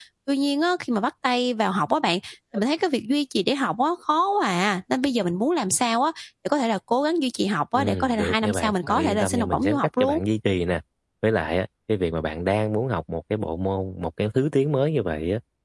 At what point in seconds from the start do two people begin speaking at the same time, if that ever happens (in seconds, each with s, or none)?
7.7 s